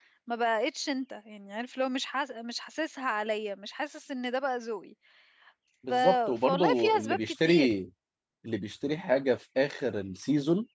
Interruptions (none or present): present